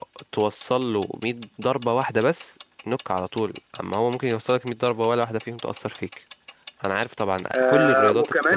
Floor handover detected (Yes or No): Yes